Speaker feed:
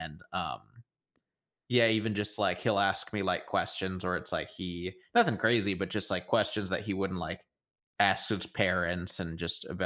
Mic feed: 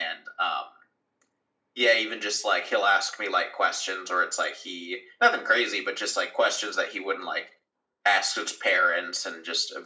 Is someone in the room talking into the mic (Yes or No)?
No